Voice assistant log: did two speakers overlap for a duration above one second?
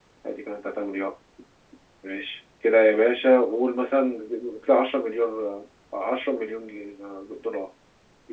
No

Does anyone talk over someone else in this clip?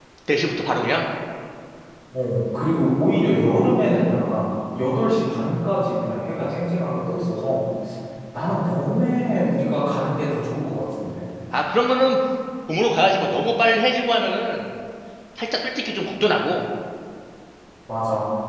No

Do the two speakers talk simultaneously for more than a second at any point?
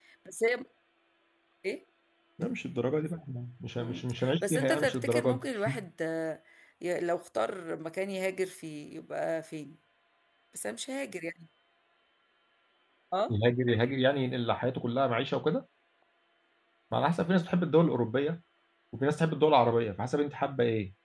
Yes, from 3.8 s

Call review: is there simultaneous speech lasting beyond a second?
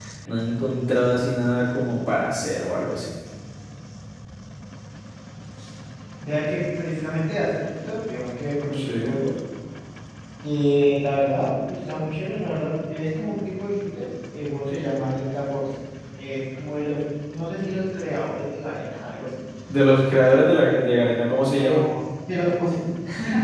No

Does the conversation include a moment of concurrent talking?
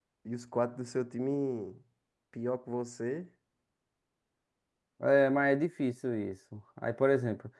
No

